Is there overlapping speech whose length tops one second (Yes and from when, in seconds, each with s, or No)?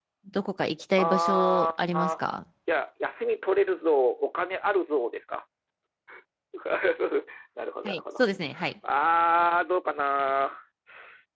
Yes, from 1.0 s